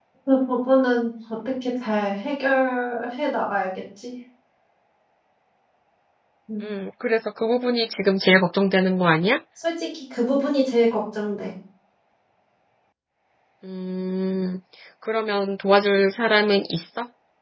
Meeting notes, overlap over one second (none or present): none